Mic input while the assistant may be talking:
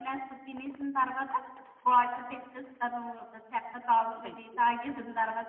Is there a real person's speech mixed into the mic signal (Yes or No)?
Yes